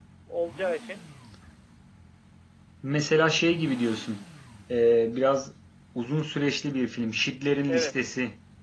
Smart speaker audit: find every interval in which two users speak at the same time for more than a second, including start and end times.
none

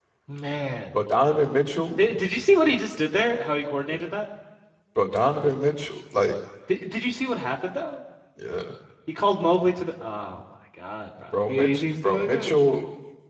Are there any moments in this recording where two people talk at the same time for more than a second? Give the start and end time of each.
11.3-12.6

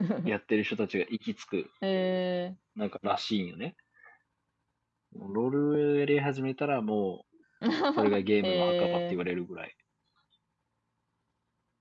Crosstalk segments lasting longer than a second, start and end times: 8.0-9.2

